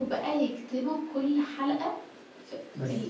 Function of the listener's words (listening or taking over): taking over